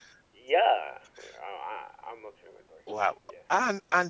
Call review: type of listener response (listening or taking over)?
taking over